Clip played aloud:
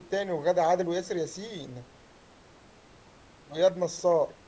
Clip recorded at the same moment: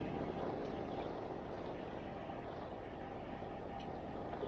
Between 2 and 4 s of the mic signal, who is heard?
neither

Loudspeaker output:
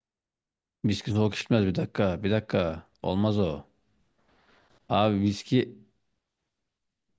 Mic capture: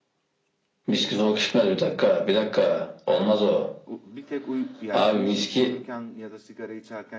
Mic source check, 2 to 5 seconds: both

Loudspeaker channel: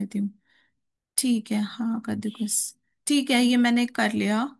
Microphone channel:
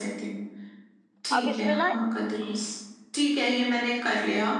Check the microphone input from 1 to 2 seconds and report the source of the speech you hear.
both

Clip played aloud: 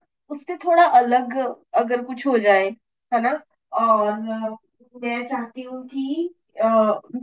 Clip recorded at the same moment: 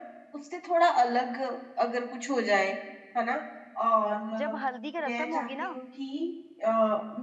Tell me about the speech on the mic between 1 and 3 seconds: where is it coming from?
echo only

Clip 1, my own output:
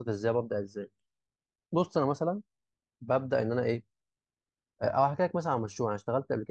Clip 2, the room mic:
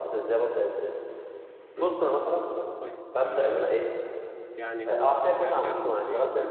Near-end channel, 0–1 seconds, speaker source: echo only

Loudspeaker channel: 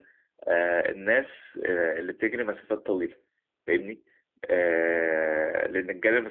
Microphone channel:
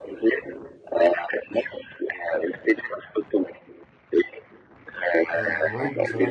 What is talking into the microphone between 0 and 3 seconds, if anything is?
echo only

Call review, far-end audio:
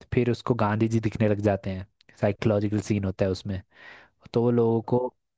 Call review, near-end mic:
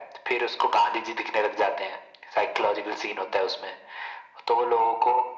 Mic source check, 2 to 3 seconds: echo only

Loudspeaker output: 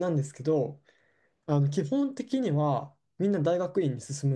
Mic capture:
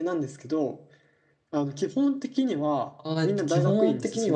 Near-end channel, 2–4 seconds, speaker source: both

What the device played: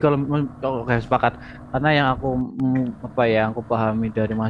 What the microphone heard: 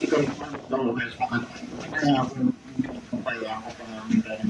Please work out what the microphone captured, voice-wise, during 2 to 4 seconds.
echo only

